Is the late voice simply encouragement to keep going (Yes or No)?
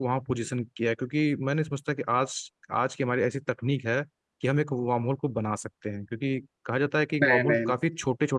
Yes